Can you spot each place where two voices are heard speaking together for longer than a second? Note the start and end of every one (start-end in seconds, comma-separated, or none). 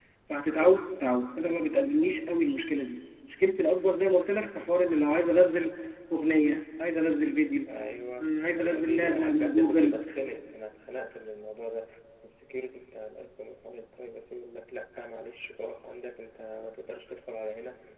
8.2-10.0